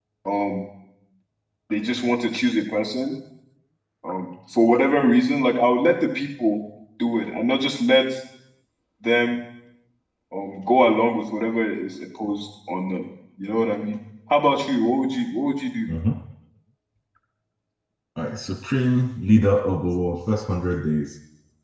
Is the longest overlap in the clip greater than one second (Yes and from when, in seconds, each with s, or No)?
No